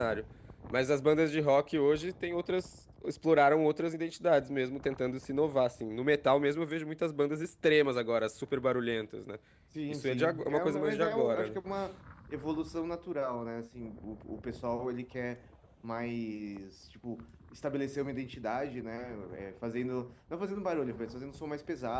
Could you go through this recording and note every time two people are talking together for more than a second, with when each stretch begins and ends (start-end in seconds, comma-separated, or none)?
9.9-11.6